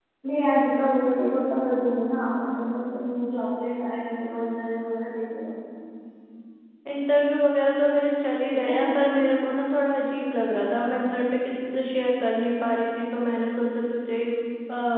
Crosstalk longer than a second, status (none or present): none